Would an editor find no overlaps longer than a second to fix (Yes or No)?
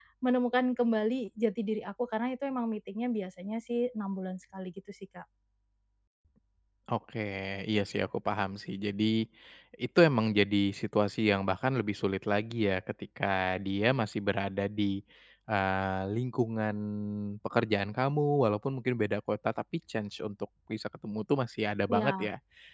Yes